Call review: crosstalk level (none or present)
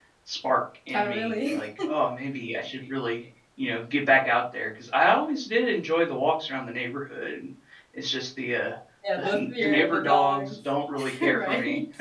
present